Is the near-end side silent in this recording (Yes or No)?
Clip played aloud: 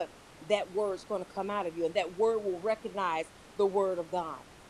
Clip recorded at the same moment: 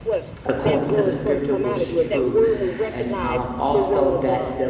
No